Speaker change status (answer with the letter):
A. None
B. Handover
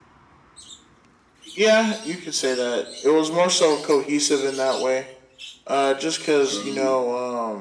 A